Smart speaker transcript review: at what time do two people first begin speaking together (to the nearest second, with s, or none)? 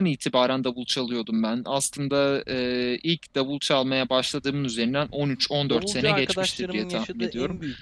6 s